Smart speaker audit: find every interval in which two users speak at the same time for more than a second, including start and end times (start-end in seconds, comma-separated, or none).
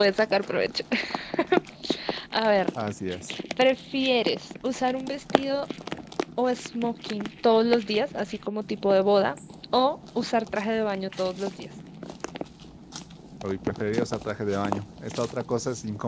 none